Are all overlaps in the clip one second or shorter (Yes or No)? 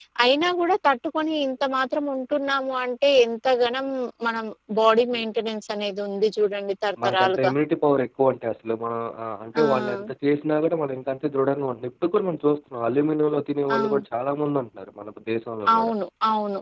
Yes